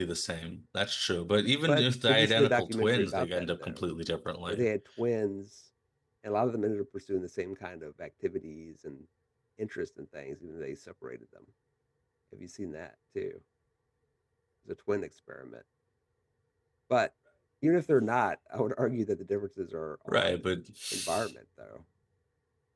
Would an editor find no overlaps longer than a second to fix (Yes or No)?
No